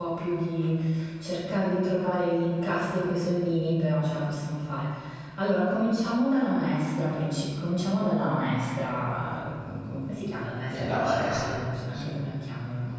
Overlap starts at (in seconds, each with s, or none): 10.7 s